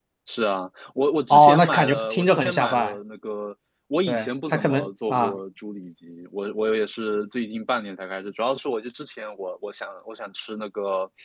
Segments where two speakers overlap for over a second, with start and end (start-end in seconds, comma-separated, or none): 1.3-3.0, 4.1-5.4